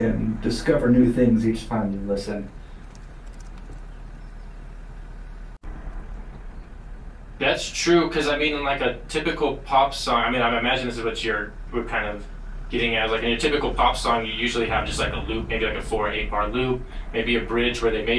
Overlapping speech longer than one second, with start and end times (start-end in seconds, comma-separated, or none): none